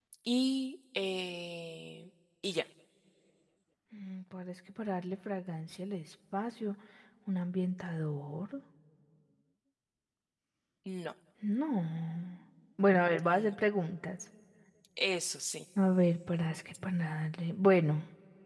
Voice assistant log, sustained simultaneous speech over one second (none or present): none